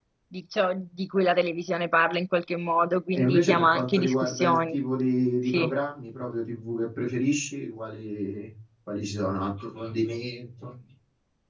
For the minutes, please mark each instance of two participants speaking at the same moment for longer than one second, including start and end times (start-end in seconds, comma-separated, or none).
3.1-4.8